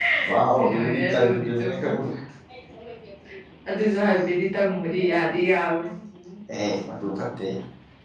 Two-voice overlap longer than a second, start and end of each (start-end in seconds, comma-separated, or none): 0.5-1.9